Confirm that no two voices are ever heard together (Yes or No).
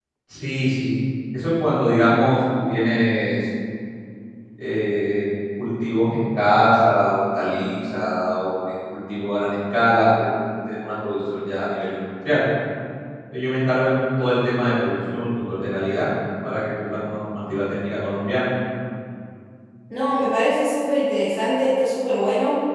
Yes